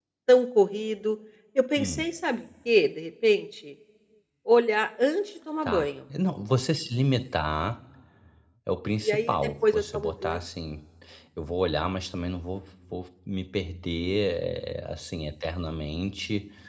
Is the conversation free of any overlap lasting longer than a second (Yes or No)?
No